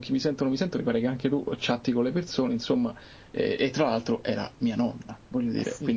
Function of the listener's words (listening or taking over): taking over